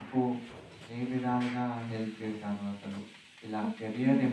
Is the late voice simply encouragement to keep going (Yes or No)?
Yes